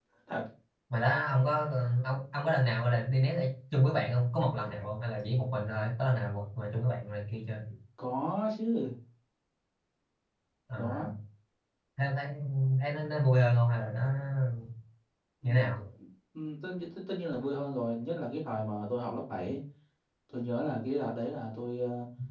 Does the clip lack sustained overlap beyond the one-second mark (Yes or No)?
Yes